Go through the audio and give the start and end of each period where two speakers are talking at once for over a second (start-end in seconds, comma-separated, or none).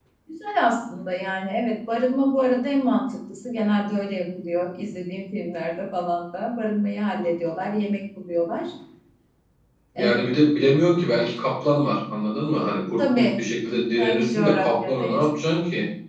14.0-15.2